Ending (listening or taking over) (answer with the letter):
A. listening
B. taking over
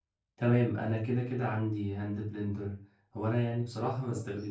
A